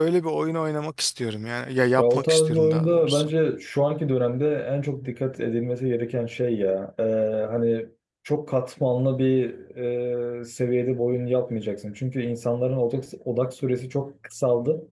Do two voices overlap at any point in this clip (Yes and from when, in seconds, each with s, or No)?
Yes, from 2.0 s